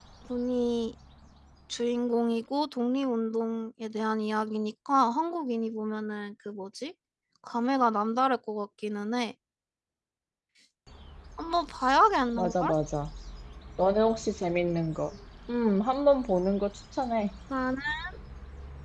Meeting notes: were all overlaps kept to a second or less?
Yes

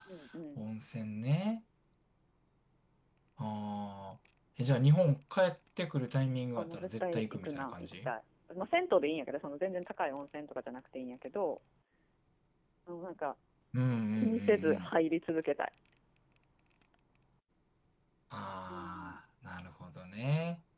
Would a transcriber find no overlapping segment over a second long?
No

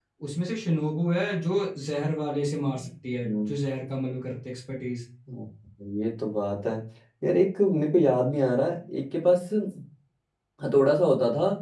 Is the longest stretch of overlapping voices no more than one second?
Yes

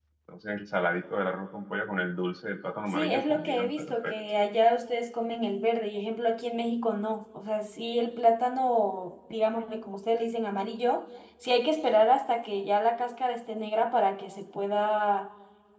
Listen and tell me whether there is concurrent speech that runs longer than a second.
Yes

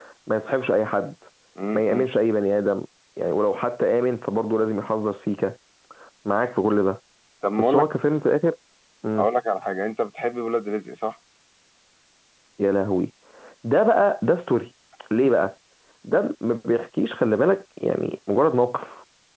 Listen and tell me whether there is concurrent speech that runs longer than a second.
No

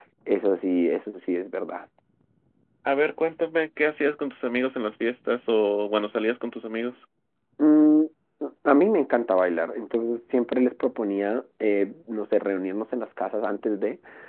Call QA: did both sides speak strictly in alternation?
Yes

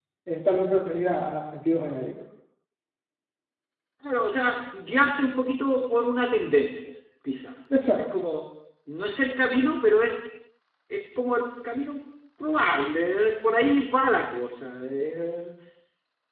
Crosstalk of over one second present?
No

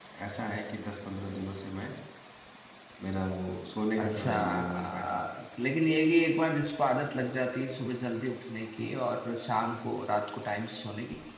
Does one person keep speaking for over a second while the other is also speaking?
Yes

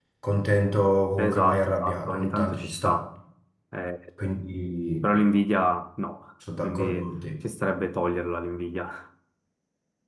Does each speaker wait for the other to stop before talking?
No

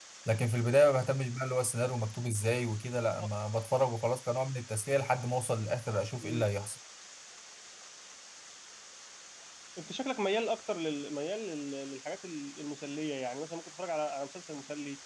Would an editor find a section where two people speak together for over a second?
No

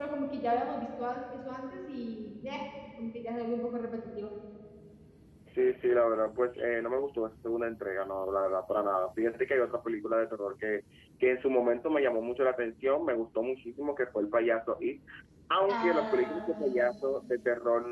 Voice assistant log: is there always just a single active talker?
No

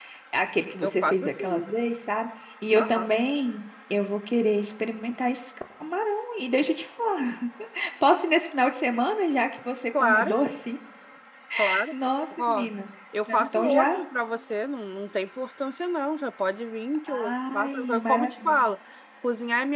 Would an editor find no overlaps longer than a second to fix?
No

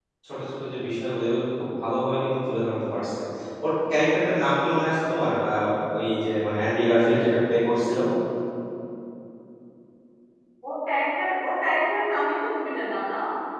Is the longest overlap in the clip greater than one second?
No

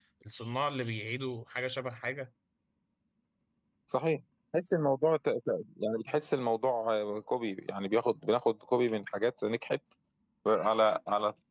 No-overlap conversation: Yes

